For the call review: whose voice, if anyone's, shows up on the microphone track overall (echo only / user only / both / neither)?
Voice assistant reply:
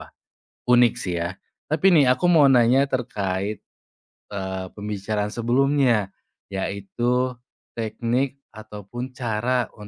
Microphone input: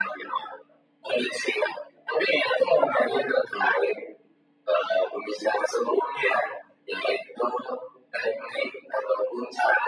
echo only